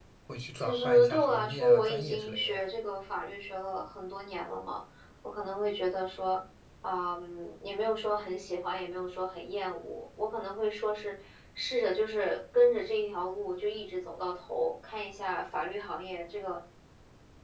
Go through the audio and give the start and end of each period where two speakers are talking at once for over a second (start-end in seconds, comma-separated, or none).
0.6-2.6